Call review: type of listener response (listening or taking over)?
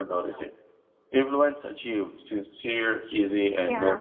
taking over